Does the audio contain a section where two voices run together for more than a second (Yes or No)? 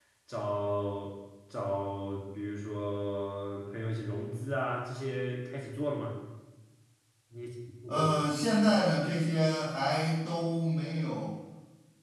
No